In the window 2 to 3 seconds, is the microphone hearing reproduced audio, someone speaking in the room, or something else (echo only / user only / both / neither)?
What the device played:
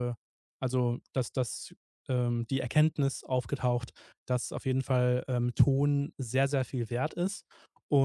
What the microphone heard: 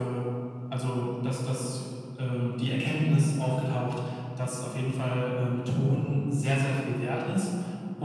echo only